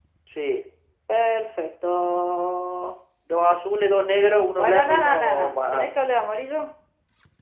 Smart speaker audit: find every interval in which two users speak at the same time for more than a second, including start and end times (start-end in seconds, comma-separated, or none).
4.6-5.9